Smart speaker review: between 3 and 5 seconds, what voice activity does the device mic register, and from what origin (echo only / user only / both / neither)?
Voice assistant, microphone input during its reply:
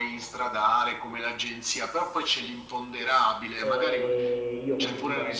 both